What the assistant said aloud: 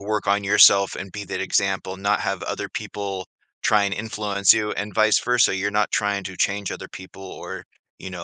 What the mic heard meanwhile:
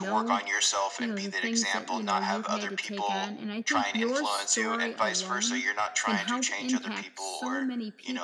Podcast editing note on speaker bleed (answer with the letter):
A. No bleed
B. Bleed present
B